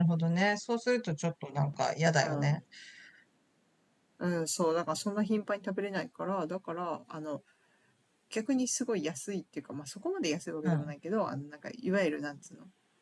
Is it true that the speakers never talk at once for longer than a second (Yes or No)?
Yes